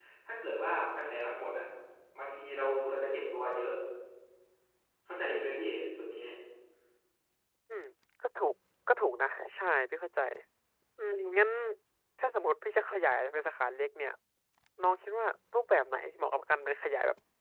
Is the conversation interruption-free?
Yes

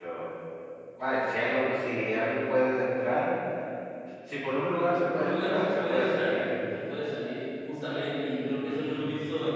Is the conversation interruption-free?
No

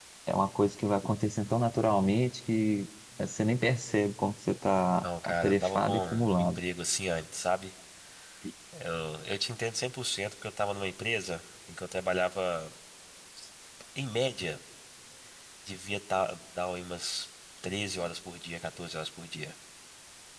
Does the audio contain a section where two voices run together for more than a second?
Yes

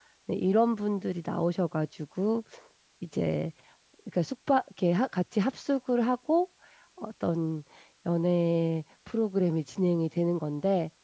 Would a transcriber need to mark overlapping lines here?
No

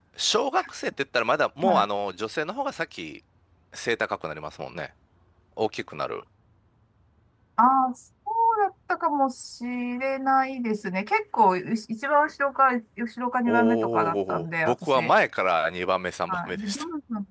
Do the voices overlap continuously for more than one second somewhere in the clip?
Yes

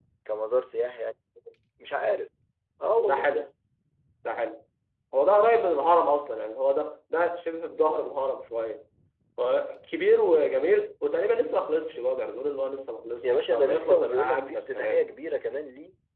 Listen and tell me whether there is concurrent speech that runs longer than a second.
Yes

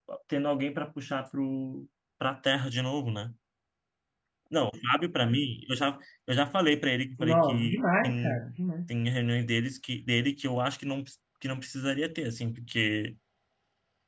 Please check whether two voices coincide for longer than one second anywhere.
Yes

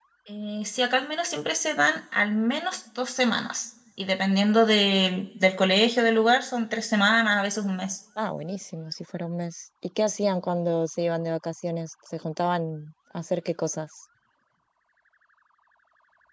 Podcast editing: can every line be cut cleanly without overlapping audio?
Yes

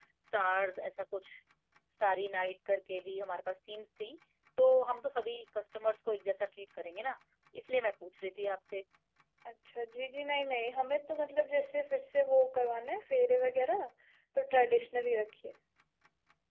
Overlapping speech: No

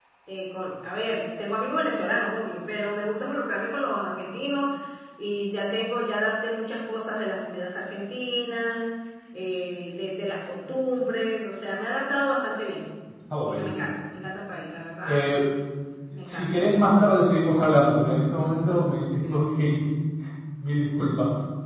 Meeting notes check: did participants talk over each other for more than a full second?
No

